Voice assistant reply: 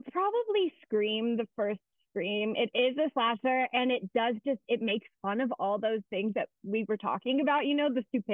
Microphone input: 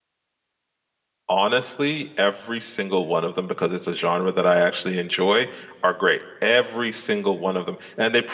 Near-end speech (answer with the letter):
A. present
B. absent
A